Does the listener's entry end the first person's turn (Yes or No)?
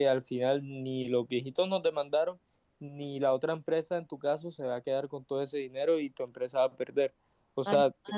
Yes